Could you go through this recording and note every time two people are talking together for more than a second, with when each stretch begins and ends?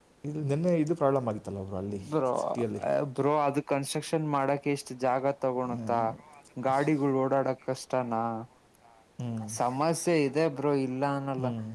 none

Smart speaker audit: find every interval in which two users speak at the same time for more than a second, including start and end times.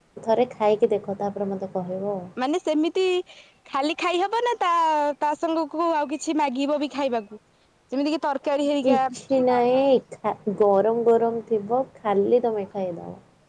none

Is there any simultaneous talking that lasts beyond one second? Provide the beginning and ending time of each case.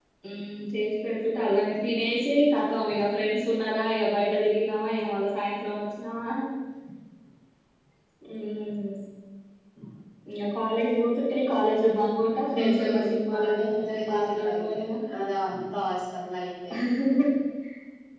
12.5-14.9

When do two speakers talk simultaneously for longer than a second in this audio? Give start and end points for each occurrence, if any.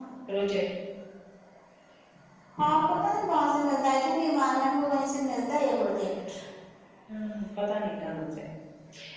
none

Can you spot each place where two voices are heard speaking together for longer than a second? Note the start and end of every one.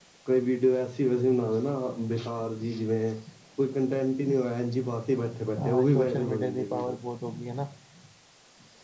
5.6-7.0

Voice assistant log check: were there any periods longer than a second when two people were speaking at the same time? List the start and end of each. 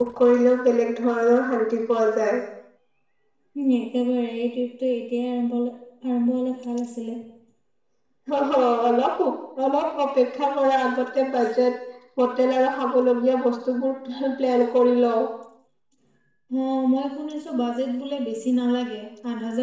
none

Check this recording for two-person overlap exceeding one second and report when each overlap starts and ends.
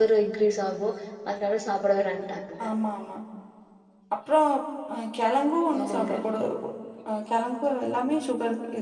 none

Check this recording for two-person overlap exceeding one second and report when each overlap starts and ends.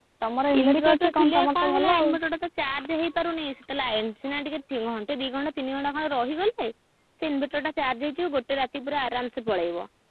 0.6-2.1

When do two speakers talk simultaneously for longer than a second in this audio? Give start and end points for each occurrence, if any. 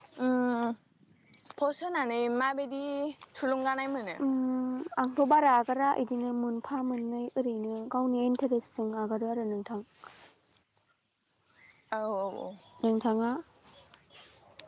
none

